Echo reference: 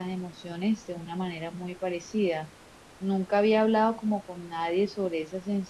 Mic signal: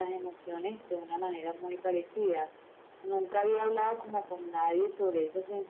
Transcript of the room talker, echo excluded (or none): none